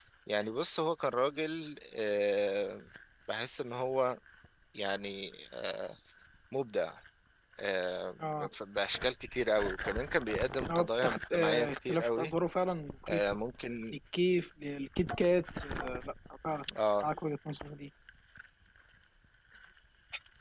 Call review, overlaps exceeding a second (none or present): present